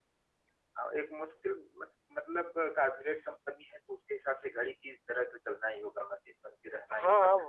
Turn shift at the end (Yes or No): Yes